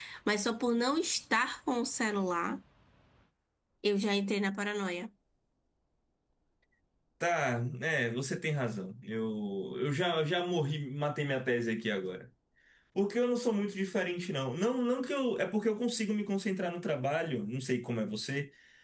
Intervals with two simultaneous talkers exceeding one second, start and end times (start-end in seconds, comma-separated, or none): none